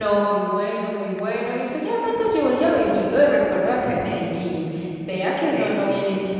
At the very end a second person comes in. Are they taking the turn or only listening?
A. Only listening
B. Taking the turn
A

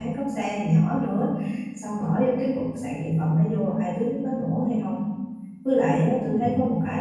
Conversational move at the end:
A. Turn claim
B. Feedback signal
B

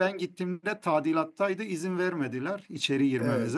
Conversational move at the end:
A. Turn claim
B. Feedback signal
A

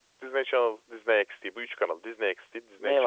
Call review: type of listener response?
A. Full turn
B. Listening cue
A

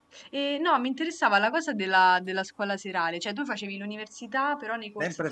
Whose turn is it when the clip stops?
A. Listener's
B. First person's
A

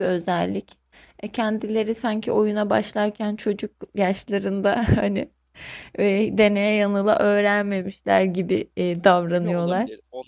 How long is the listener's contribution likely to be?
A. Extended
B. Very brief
A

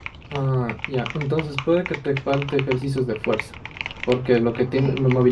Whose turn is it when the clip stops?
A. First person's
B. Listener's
A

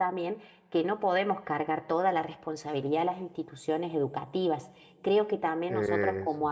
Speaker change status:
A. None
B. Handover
A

